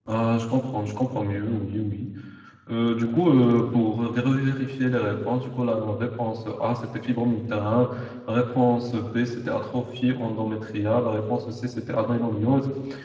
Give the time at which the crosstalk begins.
none

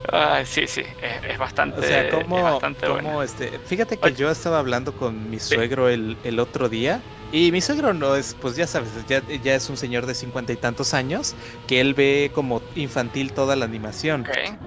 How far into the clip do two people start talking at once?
1.7 s

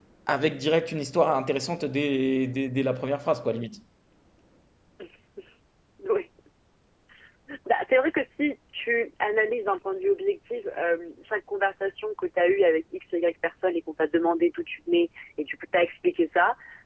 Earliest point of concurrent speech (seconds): none

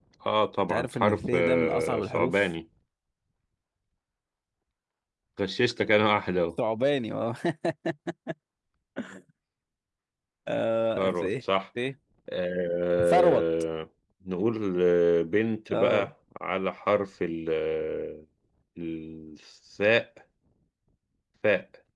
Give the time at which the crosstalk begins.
0.7 s

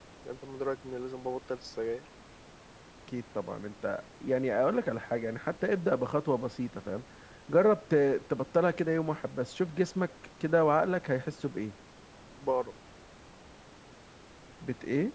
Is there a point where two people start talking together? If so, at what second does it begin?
none

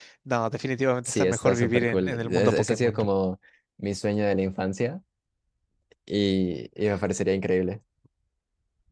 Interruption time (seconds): 1.0 s

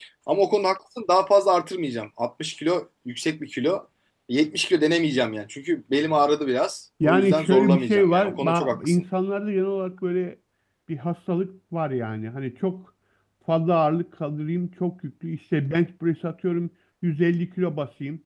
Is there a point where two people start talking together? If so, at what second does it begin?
7.0 s

